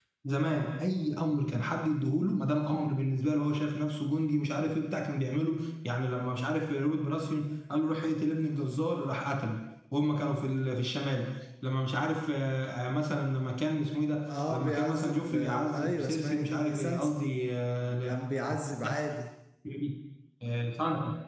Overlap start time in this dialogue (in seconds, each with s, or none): 14.3 s